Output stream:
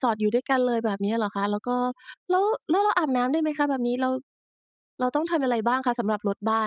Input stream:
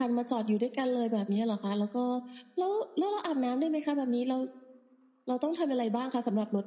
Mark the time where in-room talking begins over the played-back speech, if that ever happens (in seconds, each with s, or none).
none